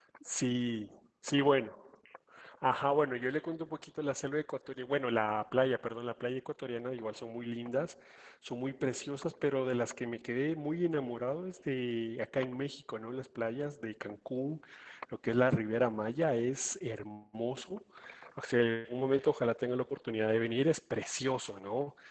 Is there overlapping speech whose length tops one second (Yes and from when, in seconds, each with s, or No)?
No